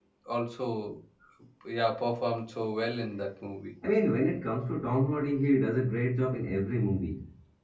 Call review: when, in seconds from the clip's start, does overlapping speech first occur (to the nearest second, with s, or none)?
none